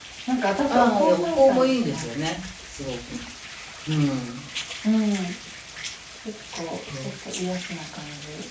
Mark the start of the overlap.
1 s

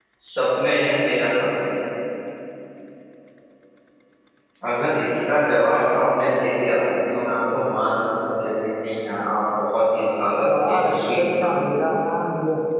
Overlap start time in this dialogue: 10 s

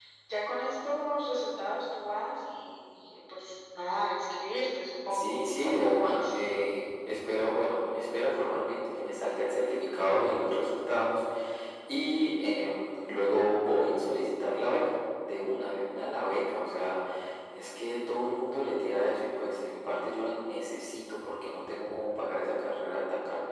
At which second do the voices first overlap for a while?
5 s

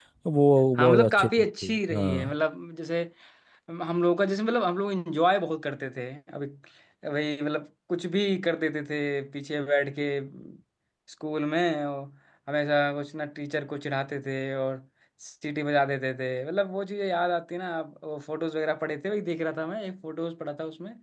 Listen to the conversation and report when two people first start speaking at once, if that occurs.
1 s

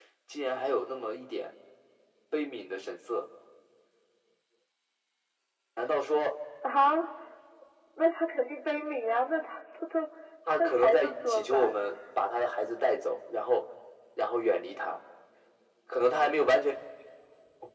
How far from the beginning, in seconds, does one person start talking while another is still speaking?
10 s

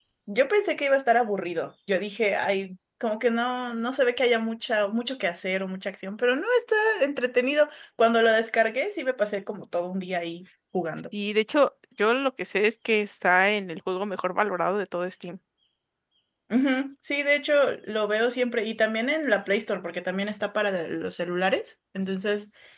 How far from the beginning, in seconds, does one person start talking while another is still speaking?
none

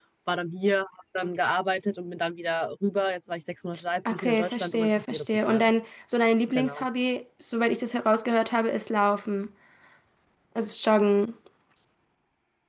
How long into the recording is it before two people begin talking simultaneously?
4 s

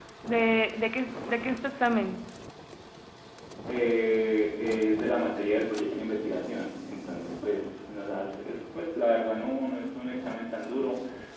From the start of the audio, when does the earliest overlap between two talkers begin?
none

